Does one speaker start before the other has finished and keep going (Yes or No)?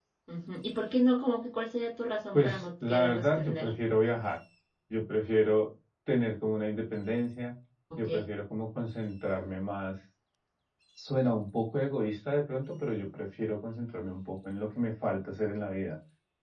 Yes